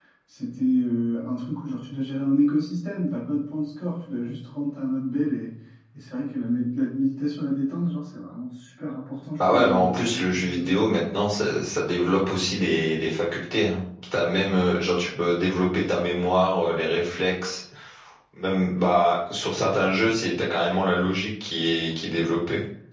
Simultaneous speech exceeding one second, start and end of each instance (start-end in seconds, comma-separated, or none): 9.4-11.0